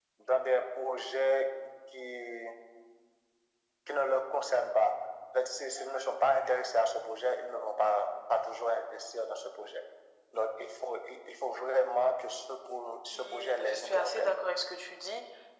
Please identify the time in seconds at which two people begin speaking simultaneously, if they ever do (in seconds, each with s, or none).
13.1 s